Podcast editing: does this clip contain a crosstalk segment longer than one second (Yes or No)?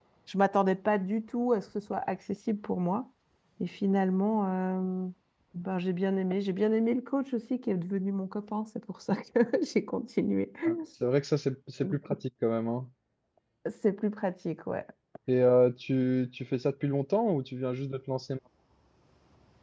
No